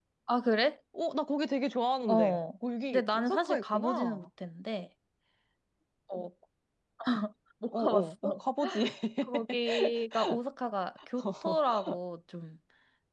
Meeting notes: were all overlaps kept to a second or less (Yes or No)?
No